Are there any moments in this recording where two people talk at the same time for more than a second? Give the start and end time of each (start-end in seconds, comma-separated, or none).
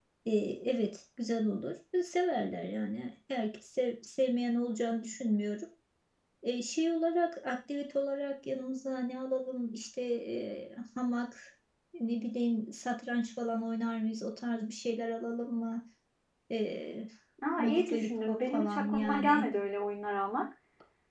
17.6-19.4